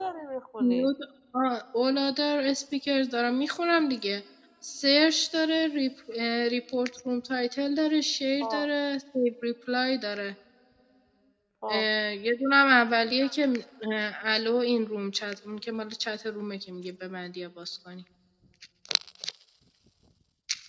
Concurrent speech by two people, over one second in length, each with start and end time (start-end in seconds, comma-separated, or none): none